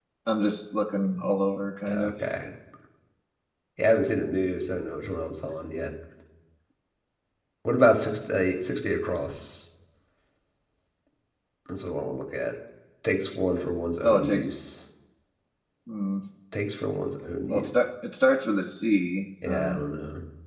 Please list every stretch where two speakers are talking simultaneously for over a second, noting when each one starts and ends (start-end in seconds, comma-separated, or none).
none